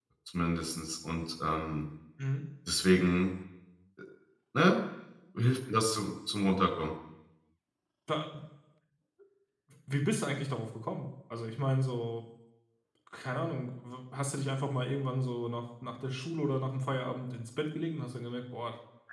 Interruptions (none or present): none